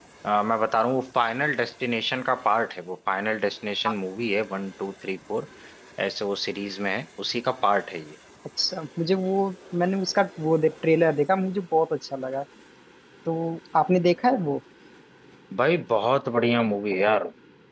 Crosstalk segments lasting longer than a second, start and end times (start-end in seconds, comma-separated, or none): none